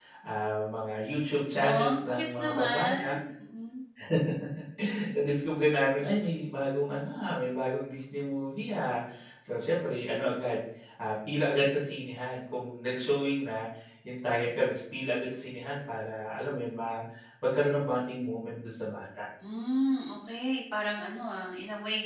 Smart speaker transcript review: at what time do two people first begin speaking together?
2 s

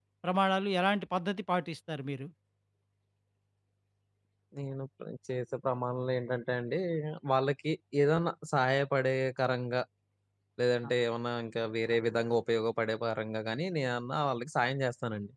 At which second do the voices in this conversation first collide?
none

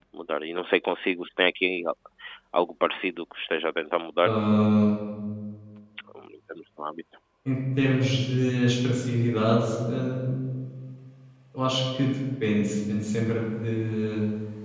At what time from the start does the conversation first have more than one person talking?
none

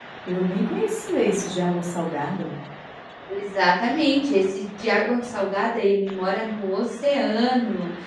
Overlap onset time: none

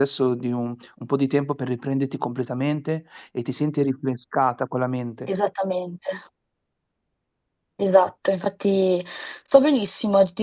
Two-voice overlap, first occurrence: none

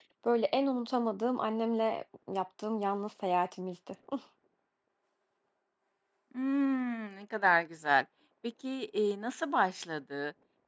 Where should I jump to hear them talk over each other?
none

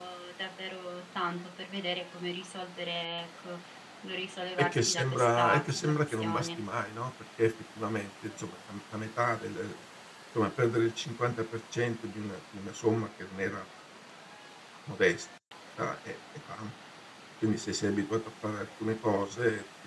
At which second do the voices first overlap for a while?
5 s

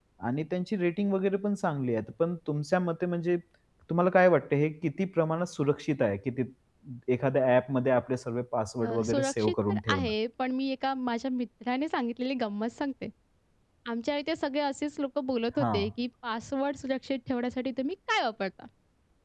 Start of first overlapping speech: 9 s

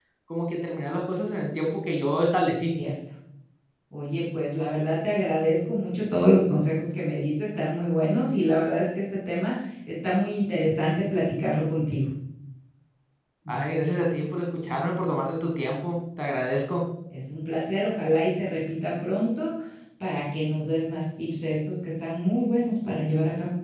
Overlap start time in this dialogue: none

